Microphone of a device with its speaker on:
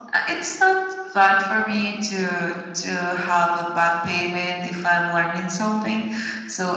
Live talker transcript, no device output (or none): none